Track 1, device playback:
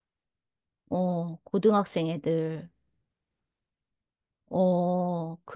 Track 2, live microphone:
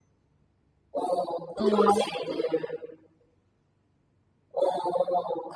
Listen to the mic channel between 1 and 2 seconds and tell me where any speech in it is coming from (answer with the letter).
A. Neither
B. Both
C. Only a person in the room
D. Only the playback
B